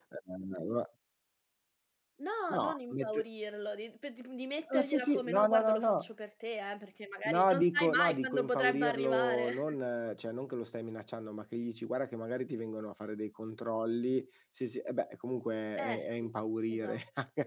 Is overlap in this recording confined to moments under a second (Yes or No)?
No